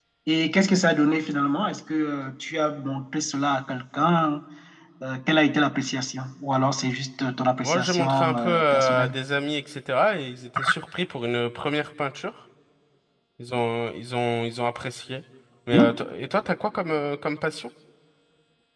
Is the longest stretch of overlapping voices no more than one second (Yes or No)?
No